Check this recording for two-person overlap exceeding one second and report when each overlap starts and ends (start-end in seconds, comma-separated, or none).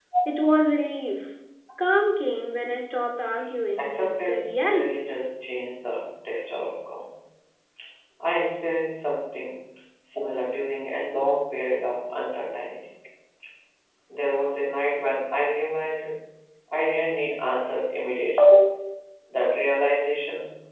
3.8-5.0